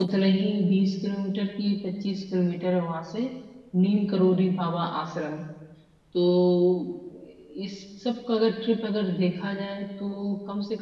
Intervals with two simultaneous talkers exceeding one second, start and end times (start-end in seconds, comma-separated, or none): none